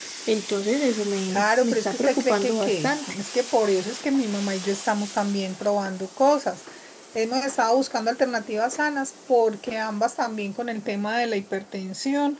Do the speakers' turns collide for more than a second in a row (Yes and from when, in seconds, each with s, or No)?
Yes, from 1.3 s